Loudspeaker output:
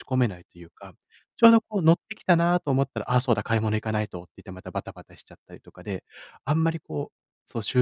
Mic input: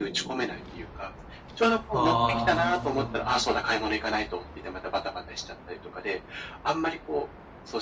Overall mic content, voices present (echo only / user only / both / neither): both